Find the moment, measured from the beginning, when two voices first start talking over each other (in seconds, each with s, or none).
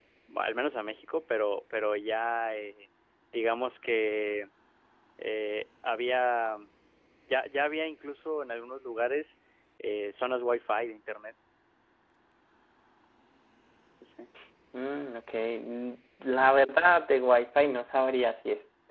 none